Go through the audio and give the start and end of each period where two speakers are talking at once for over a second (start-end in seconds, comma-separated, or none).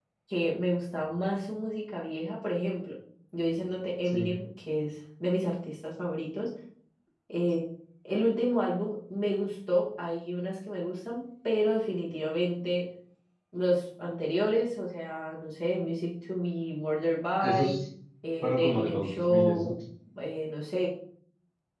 18.4-19.7